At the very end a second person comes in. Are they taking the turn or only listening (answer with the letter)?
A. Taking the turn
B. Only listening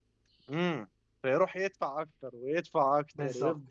A